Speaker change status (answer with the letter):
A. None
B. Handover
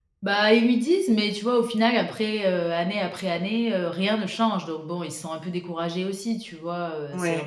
A